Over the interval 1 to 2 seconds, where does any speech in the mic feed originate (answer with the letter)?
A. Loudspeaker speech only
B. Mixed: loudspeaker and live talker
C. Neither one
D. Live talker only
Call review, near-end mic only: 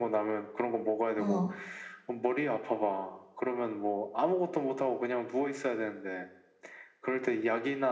B